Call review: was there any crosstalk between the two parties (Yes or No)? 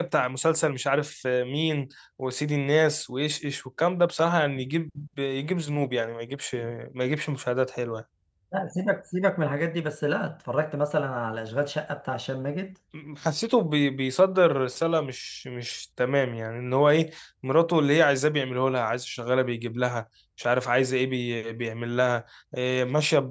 No